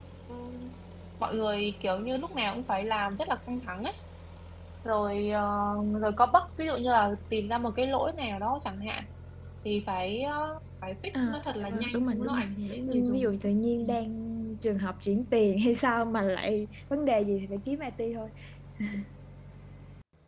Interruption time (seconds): 11 s

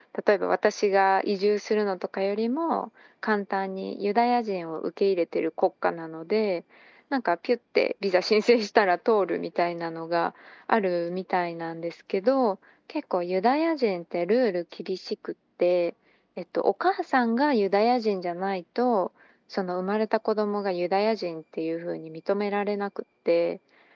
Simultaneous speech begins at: none

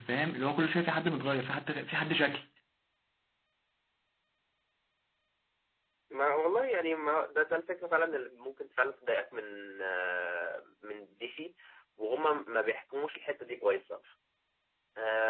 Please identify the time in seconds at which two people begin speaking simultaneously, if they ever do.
none

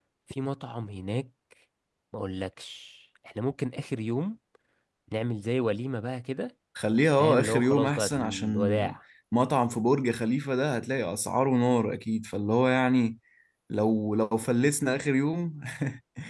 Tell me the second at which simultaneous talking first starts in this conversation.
7 s

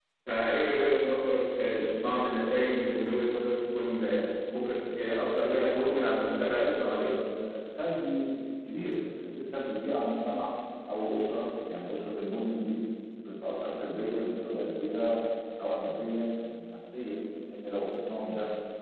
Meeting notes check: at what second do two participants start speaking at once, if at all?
6 s

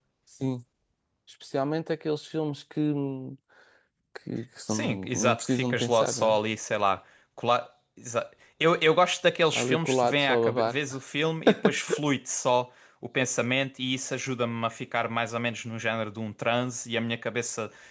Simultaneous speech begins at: 5 s

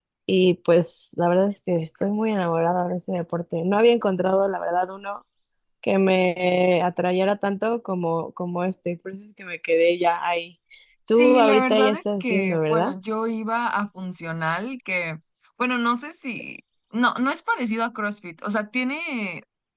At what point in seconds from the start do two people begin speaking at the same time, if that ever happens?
11 s

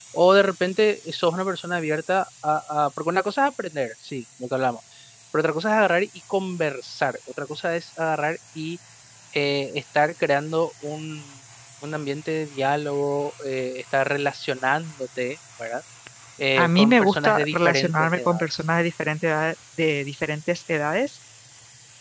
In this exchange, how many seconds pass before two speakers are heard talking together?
17 s

